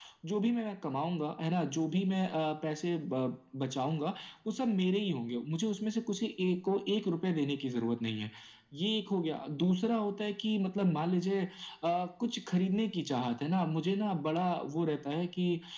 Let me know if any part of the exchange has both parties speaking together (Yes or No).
No